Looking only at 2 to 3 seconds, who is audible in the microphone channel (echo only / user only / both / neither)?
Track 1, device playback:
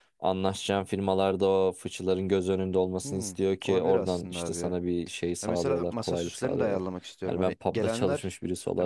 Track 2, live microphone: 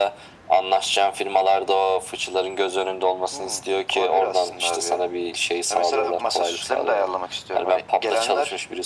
echo only